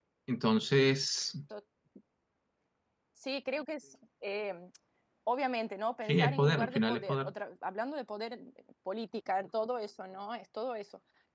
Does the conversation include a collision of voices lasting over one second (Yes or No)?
Yes